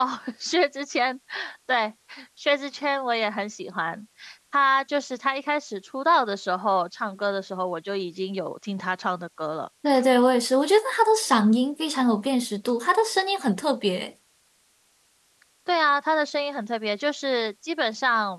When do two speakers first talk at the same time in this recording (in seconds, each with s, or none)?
none